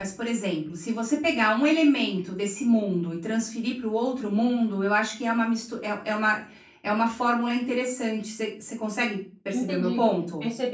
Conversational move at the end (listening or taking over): taking over